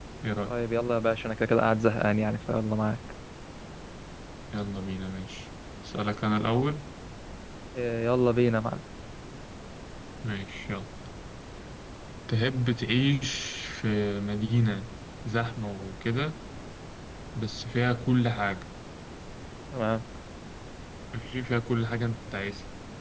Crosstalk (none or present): none